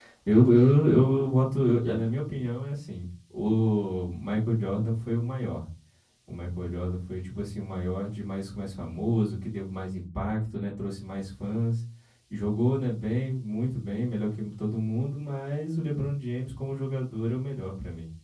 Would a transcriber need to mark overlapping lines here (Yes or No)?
No